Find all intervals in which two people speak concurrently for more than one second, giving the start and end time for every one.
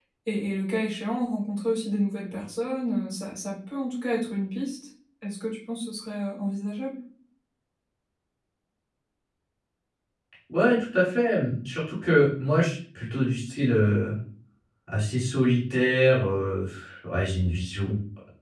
none

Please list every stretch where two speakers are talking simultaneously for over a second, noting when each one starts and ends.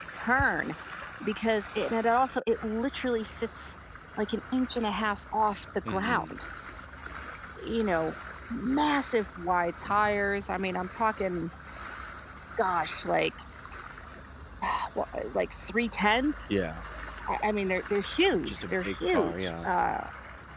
18.4-19.7

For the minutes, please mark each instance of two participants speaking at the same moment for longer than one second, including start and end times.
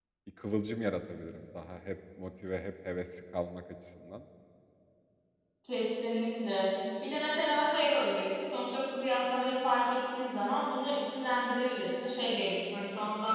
none

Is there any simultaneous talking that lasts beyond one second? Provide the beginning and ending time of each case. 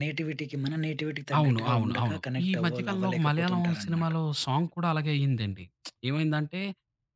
1.4-4.1

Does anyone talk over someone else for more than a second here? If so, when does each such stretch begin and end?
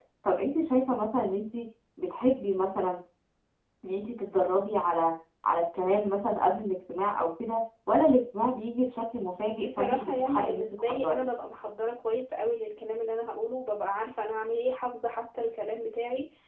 9.6-11.2

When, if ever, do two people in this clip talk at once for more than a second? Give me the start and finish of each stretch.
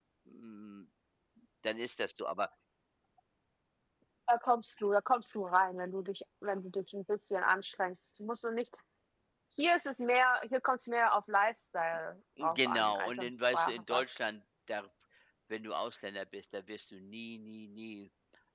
12.4-14.1

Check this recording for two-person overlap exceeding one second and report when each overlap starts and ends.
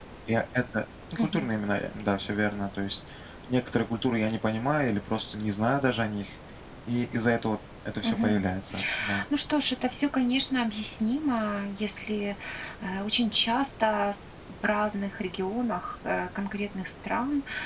none

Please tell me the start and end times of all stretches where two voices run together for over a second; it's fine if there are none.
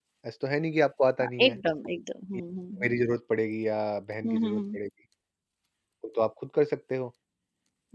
none

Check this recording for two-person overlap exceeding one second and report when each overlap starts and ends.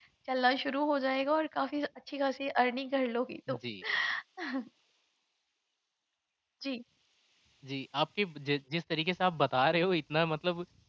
none

